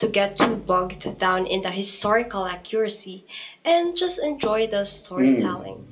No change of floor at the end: No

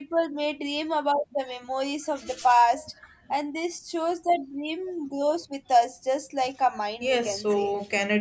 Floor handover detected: Yes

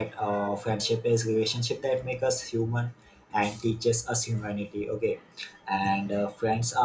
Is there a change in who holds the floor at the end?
No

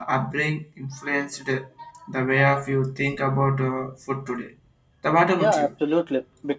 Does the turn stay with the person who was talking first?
No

